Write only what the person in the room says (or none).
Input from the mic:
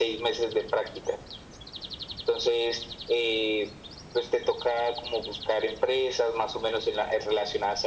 none